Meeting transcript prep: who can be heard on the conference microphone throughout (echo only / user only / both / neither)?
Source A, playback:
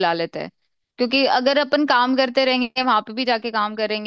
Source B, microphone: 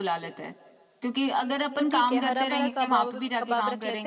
both